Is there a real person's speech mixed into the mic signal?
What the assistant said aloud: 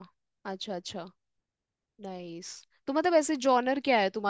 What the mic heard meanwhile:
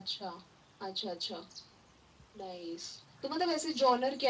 No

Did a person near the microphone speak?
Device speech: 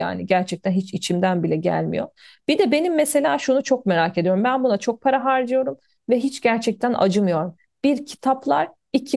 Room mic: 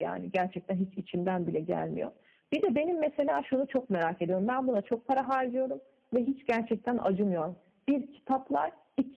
No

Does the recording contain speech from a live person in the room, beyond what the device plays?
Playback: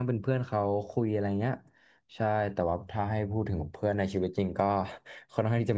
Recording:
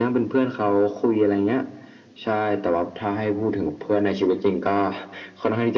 No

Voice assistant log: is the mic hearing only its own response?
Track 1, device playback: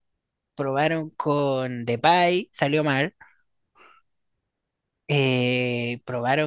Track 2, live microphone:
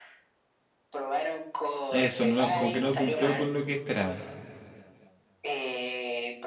No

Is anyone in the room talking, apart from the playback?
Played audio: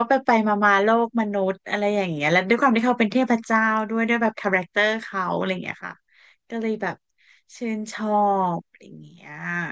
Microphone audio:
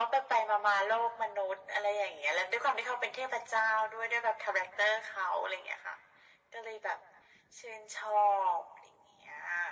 No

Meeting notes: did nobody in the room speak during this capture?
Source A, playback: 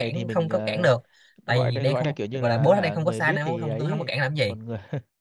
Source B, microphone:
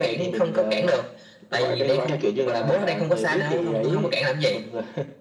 Yes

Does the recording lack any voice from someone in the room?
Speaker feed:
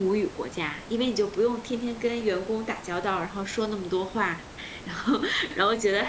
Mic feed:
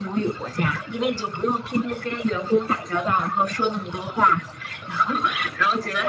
Yes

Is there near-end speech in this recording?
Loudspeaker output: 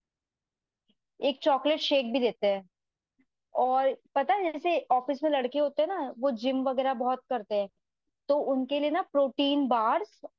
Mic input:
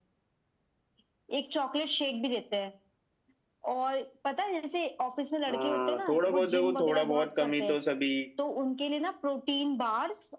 Yes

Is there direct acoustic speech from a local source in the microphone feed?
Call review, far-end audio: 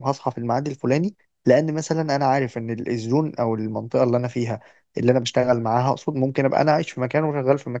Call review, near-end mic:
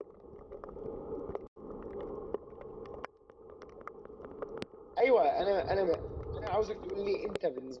Yes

